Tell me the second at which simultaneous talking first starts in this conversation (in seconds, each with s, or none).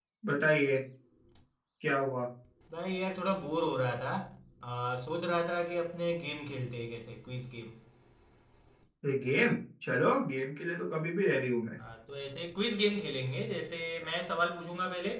none